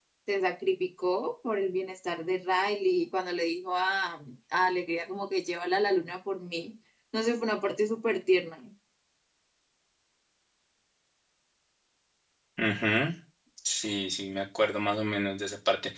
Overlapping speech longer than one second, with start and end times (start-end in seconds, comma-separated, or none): none